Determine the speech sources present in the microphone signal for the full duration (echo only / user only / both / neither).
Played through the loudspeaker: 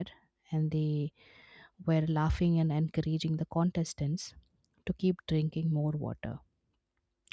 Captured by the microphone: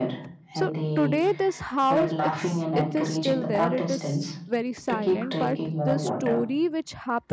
both